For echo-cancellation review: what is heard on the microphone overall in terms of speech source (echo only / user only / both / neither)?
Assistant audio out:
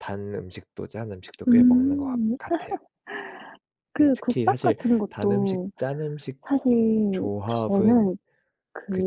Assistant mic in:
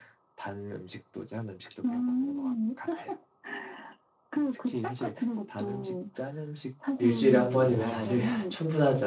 both